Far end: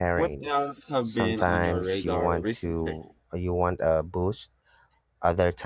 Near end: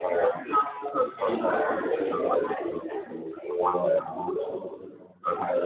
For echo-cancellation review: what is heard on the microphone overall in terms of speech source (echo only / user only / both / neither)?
echo only